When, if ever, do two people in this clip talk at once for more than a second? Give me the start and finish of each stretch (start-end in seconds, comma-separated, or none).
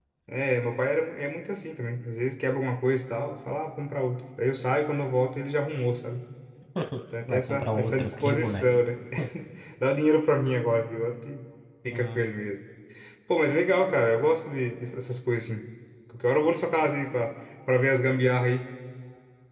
7.3-8.6